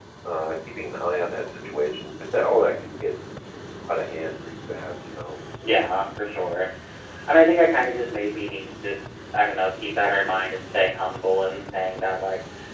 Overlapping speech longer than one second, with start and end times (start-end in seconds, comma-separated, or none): none